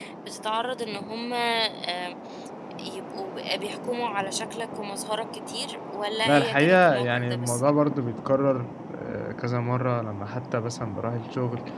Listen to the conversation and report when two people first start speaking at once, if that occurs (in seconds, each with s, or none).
6.2 s